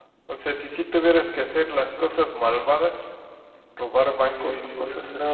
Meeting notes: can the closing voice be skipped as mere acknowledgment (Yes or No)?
No